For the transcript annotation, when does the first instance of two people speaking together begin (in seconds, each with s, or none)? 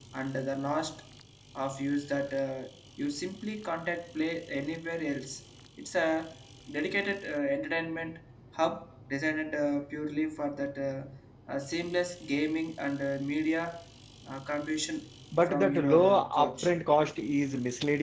15.3 s